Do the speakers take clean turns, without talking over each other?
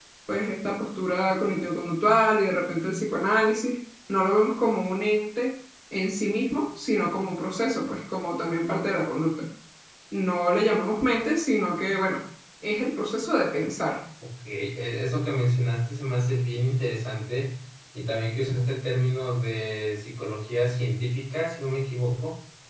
Yes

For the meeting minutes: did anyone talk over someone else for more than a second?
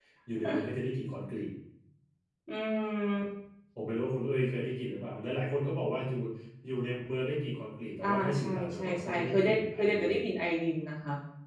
Yes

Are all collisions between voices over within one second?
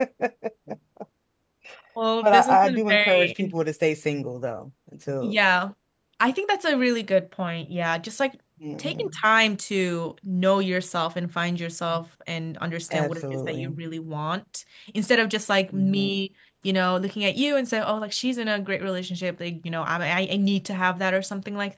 No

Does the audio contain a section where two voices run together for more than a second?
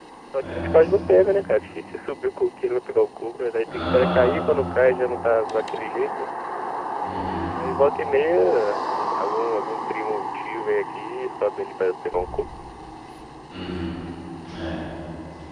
No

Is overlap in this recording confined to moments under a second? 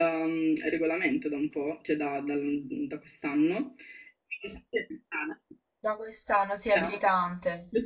Yes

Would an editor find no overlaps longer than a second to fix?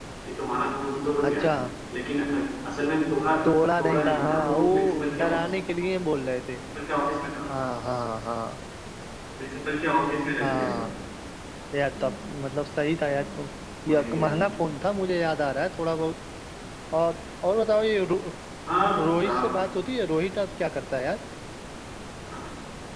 No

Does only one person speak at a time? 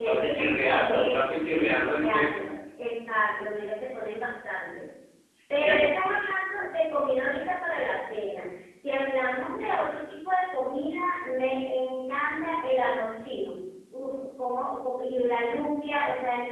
No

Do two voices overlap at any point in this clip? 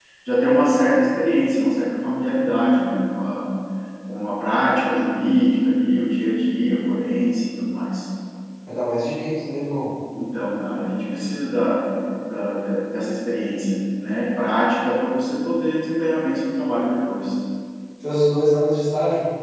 No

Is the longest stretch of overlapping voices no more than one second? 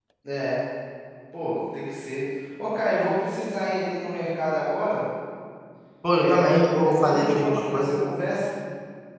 No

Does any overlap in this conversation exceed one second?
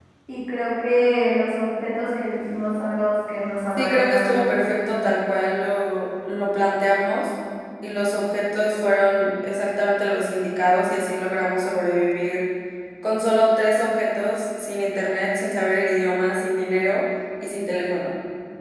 Yes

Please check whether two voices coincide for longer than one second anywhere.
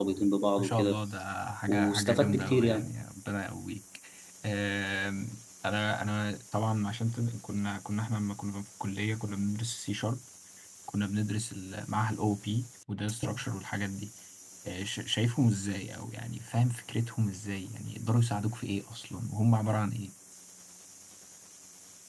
Yes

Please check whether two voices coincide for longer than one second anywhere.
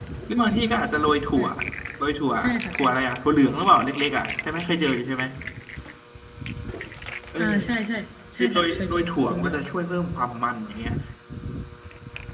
Yes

